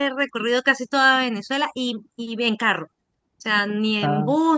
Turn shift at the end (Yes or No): No